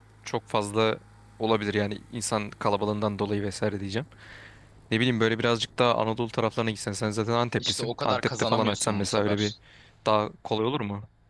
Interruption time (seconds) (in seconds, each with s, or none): 7.6 s